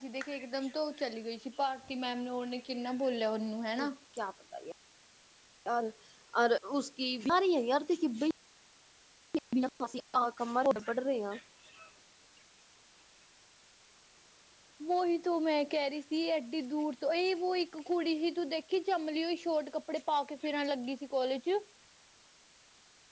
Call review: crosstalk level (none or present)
none